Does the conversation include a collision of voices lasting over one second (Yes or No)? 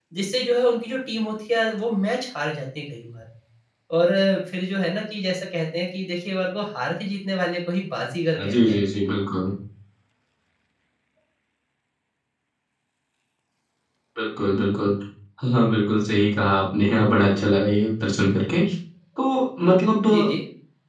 No